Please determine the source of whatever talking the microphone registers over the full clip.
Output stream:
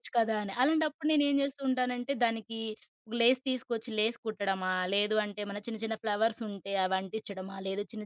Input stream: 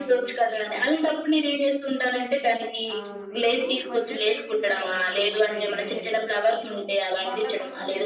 both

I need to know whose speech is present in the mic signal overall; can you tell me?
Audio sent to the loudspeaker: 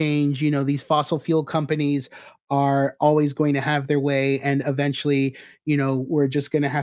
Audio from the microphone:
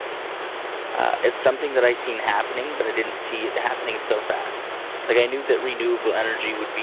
user only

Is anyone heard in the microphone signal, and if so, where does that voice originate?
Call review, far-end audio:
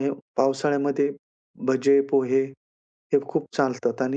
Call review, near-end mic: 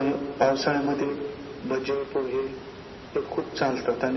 echo only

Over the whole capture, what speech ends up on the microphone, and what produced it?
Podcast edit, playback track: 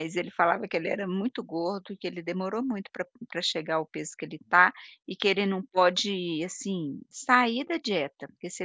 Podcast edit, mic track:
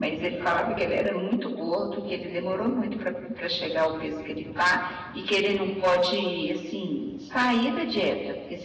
echo only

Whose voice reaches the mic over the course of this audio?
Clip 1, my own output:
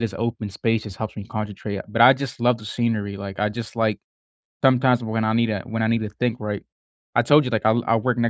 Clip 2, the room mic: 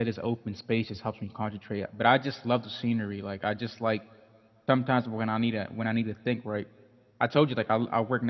echo only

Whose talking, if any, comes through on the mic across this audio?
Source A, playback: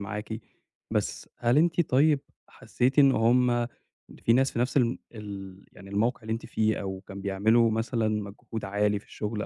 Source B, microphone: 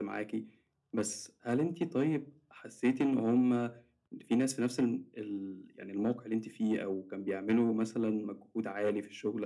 echo only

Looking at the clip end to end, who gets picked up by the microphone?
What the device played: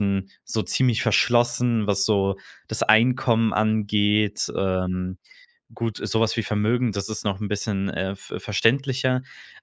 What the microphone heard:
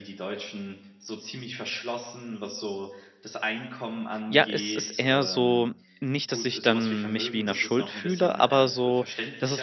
both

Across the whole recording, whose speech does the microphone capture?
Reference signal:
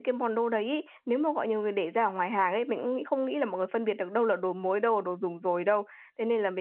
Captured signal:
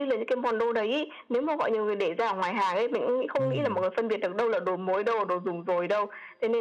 both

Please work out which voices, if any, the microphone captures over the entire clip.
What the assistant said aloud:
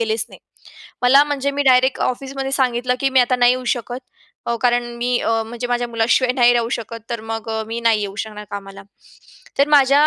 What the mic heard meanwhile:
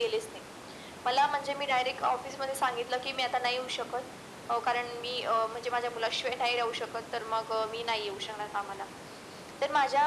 echo only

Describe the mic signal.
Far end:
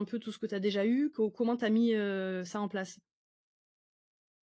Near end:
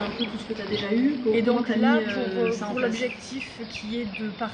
both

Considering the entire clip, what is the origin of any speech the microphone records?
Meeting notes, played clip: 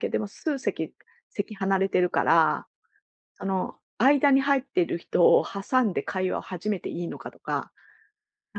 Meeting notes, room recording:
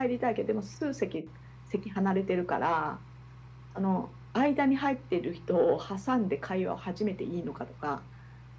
echo only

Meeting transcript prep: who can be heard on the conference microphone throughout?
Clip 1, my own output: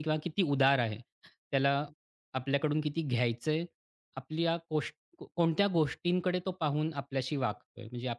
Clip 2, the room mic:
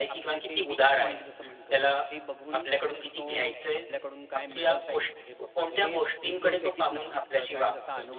both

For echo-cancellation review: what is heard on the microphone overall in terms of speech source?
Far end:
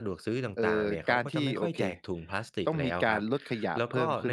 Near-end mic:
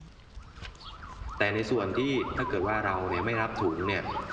user only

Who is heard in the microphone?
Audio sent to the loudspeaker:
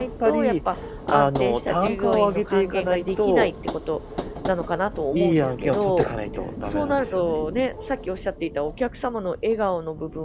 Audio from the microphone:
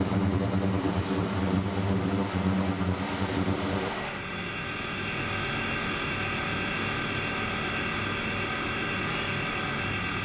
neither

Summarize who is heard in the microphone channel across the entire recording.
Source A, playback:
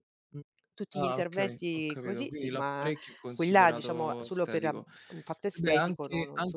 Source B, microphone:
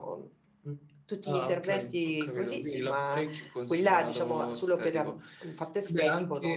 echo only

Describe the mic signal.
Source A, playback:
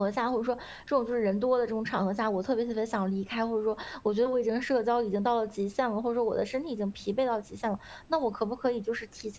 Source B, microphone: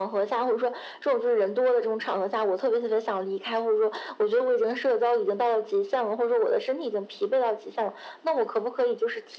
echo only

